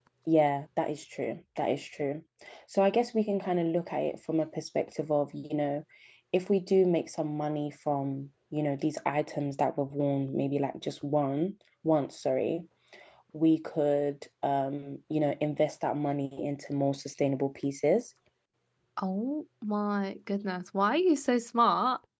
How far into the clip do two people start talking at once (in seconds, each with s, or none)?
none